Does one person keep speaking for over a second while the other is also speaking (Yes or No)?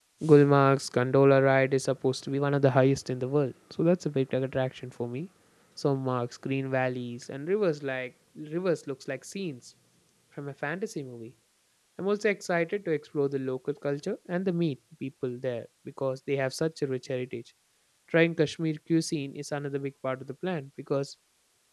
No